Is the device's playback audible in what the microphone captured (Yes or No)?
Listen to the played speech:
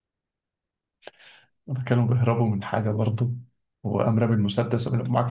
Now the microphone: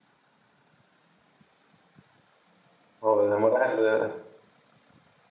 No